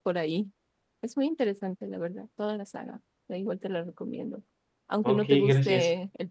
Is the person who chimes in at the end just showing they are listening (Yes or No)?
Yes